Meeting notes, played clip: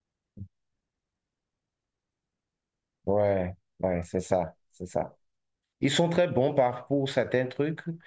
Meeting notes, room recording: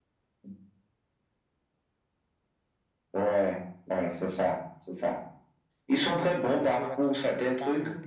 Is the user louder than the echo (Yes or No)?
No